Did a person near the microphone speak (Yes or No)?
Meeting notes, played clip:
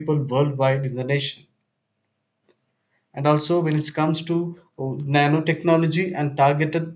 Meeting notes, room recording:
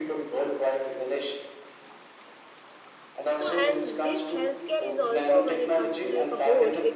Yes